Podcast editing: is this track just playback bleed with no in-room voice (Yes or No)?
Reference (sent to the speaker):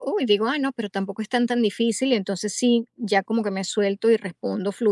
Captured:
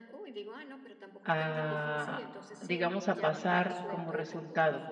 No